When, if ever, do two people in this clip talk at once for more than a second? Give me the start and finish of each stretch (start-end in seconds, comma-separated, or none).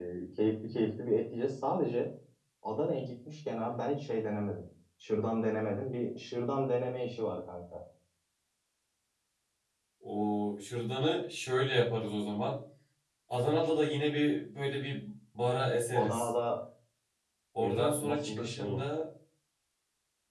17.6-18.8